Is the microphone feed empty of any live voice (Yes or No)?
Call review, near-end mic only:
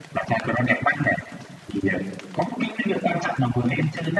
Yes